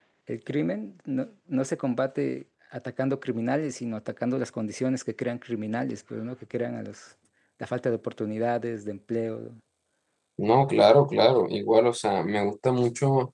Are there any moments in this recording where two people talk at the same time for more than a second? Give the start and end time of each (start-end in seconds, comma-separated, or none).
none